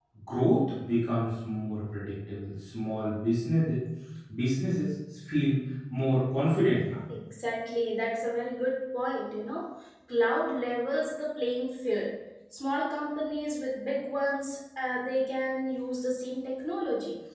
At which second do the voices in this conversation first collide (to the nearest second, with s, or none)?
none